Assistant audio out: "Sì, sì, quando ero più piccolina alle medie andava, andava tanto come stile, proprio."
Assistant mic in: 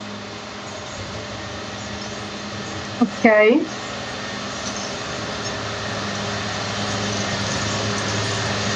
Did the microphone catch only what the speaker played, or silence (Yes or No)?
No